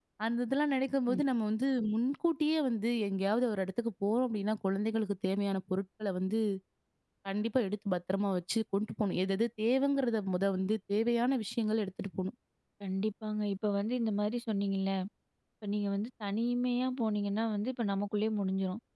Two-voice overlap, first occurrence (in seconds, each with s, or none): none